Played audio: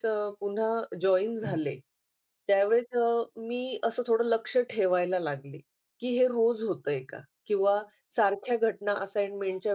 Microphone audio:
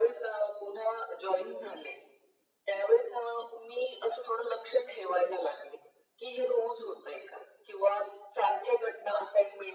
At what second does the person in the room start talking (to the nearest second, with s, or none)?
none